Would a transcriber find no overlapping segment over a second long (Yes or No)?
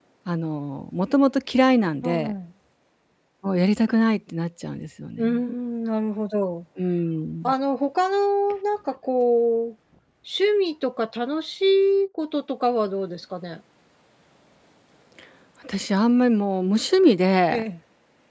Yes